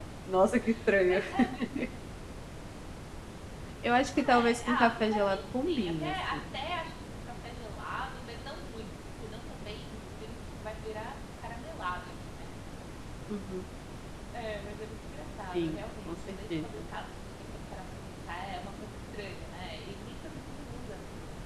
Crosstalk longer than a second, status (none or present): present